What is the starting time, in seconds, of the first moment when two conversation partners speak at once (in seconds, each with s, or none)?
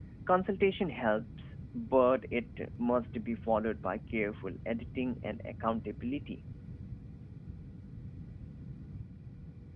none